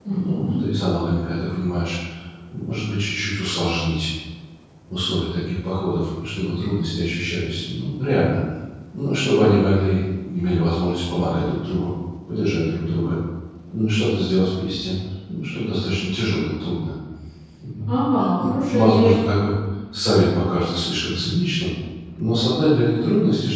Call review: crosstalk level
present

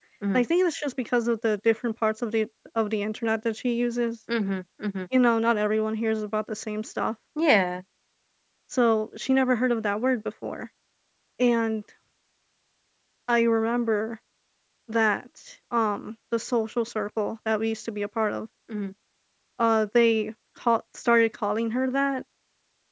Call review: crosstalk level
none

